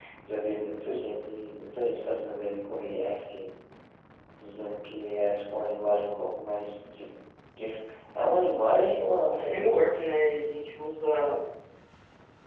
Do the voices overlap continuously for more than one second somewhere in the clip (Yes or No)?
No